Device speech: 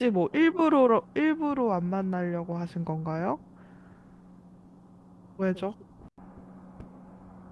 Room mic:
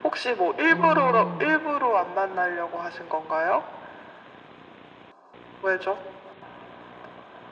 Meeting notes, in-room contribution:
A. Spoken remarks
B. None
A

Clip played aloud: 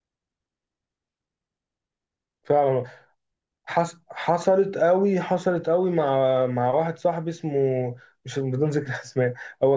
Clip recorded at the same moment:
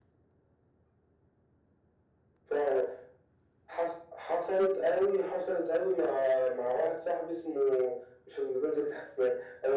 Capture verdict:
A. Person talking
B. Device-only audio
B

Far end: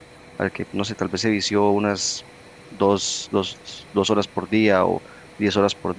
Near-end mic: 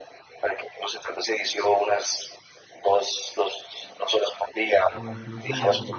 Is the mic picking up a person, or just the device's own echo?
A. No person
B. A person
B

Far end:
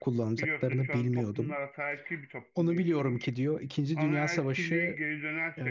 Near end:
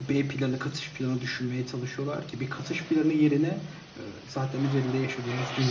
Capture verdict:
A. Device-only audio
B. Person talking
B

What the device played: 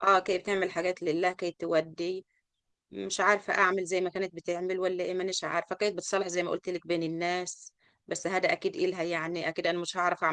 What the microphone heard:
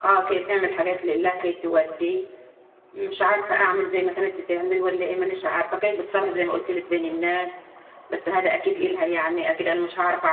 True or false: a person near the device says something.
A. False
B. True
A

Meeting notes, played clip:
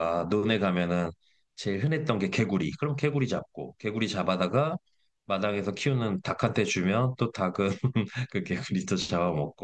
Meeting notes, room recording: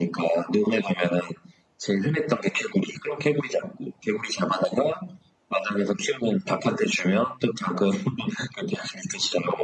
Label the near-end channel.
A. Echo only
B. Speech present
A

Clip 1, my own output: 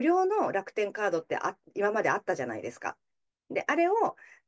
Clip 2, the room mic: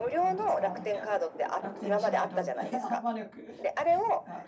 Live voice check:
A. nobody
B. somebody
B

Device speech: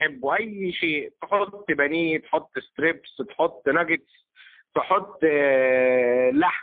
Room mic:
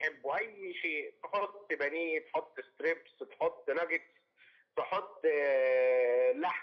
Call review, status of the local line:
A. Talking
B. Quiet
B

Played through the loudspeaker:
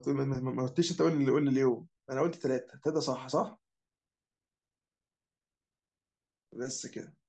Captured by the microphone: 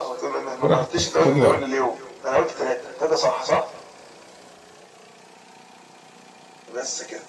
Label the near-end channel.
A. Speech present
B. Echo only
A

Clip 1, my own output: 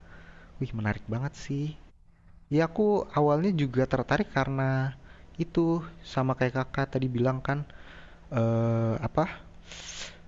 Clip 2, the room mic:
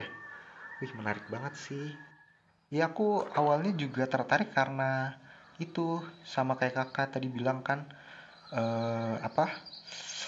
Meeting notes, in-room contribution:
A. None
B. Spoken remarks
A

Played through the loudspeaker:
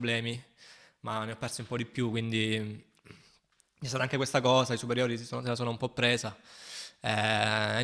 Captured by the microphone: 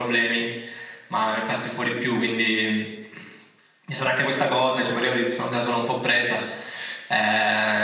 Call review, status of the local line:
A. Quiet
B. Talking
A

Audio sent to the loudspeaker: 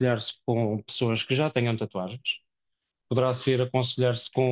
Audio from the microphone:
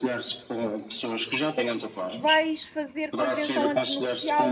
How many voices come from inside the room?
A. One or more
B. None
A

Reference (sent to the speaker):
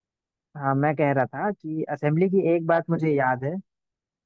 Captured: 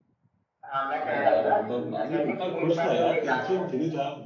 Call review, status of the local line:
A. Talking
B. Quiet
A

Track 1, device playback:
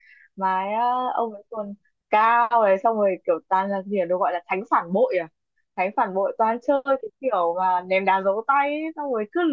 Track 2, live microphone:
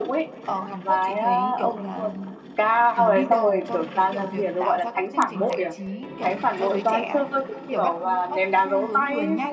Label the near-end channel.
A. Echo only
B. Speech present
B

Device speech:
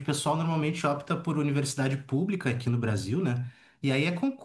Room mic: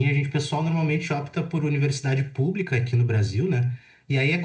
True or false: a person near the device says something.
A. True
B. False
B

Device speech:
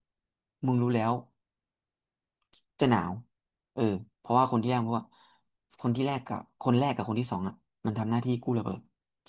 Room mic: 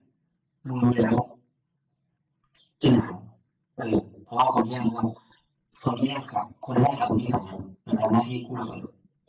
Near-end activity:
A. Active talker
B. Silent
B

